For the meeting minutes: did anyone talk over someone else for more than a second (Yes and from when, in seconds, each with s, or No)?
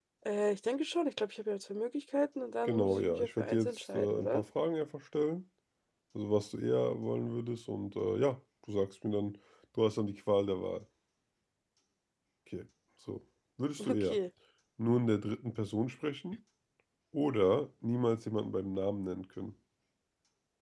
Yes, from 2.7 s